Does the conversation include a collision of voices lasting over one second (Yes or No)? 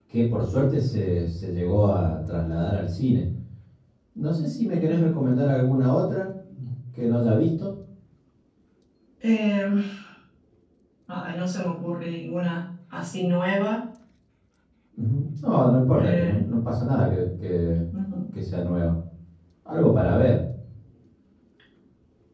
No